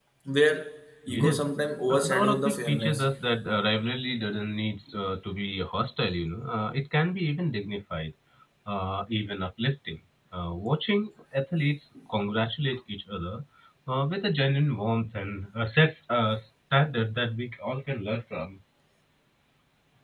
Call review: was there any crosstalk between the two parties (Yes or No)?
Yes